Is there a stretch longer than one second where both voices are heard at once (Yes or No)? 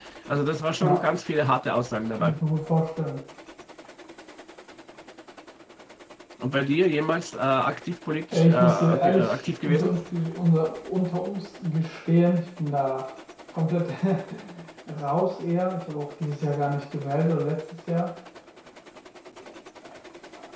Yes